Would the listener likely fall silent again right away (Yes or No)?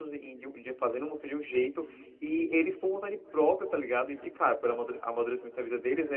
Yes